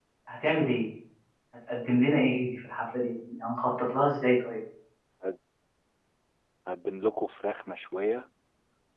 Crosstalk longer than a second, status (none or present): none